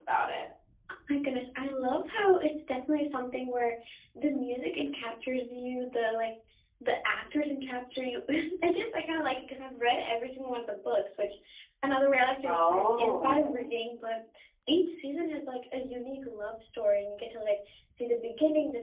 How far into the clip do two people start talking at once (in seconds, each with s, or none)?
12.5 s